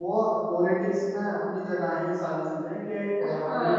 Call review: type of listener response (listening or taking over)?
taking over